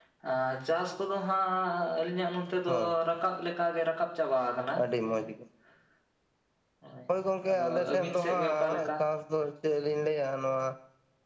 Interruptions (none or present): present